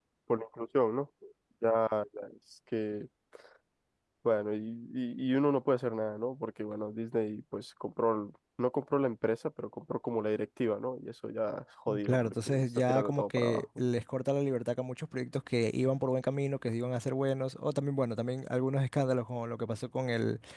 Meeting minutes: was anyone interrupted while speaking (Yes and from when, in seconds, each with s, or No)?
Yes, from 11.9 s